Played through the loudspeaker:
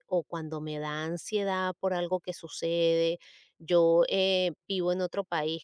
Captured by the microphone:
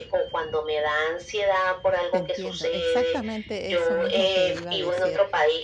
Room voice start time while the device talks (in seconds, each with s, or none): 2.1 s